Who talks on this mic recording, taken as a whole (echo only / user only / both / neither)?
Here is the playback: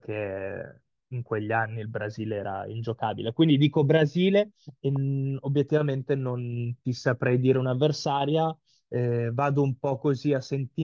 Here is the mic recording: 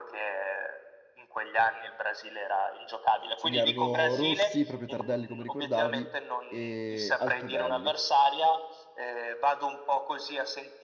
both